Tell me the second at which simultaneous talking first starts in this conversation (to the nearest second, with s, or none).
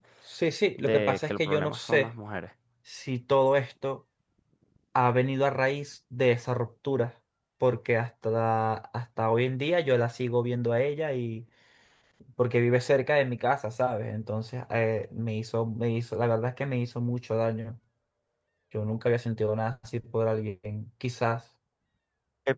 1 s